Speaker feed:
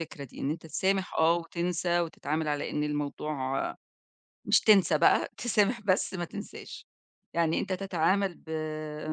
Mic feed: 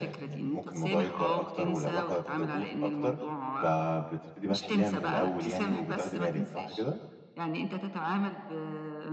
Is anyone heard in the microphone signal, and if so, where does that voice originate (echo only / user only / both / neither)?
both